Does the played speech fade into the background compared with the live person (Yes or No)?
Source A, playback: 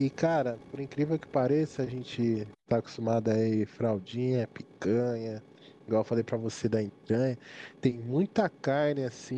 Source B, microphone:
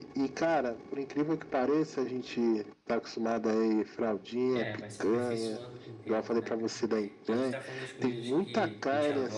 No